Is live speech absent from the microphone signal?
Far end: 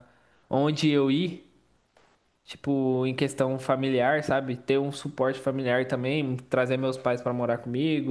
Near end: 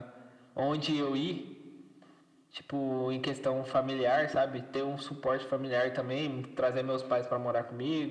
Yes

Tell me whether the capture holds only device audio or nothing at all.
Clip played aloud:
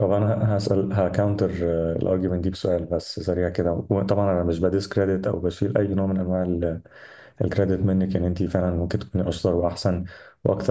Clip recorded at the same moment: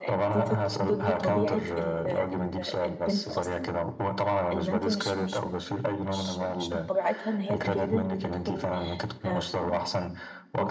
No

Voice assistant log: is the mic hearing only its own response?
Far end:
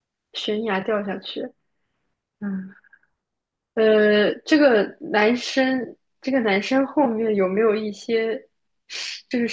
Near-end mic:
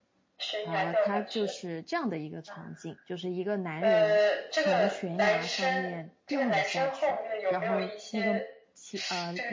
No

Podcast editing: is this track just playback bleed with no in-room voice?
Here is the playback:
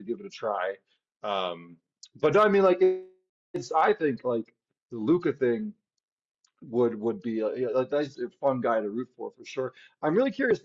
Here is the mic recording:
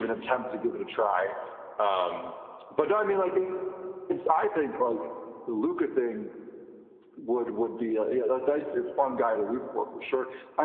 Yes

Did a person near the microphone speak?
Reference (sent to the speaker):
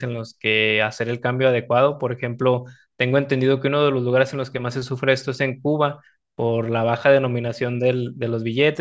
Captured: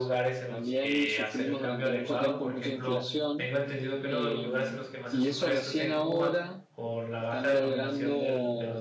Yes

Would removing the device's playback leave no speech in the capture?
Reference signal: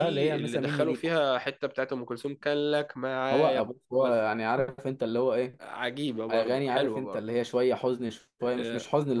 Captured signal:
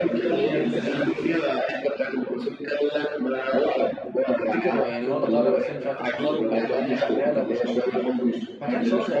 No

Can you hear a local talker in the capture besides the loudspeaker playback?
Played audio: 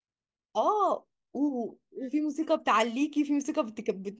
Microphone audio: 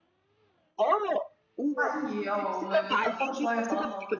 Yes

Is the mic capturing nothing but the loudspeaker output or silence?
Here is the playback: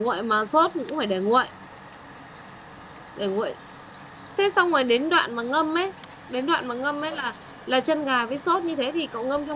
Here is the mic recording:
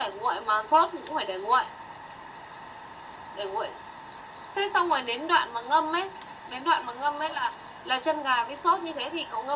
Yes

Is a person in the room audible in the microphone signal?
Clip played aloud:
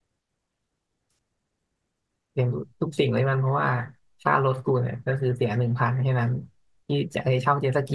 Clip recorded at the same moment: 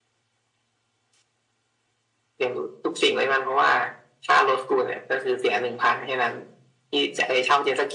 No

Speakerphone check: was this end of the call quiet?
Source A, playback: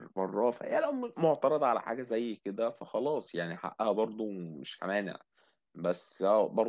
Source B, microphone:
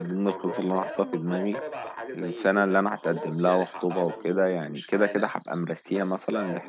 No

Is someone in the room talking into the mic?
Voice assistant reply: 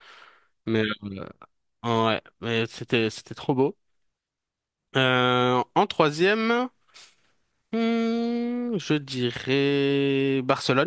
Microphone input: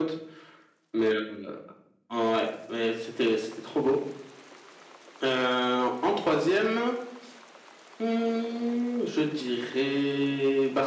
No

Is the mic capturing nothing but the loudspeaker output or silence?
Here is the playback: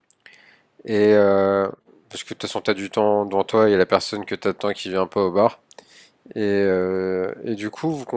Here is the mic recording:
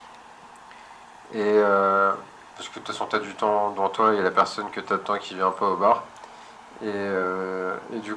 Yes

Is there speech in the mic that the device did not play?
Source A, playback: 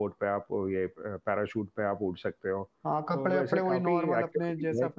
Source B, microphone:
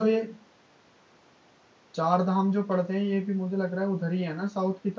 Yes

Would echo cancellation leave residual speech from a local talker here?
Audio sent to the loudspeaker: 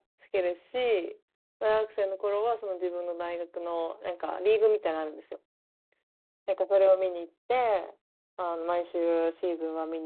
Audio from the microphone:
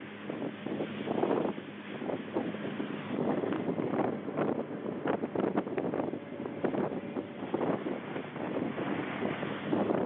No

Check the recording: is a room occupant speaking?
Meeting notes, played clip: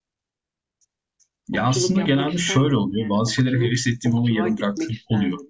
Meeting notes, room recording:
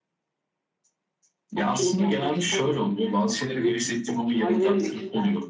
Yes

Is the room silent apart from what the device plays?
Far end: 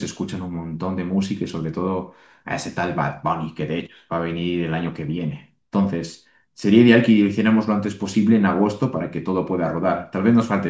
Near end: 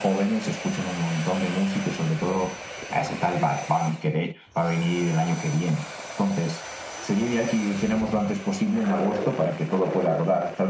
Yes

